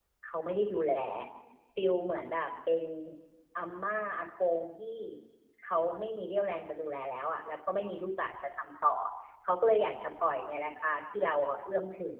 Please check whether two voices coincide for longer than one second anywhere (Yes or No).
No